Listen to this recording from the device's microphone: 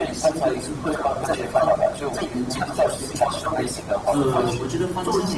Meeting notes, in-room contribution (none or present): present